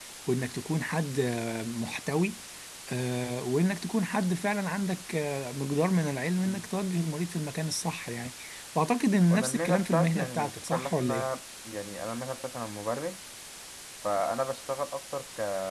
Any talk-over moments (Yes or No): Yes